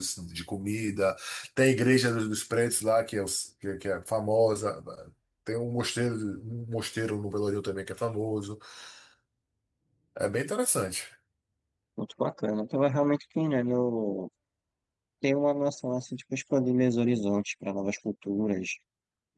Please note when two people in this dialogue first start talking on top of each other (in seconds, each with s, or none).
none